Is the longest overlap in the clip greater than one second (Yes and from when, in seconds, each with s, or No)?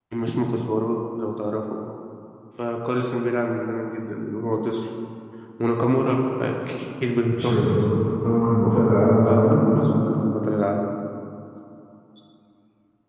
No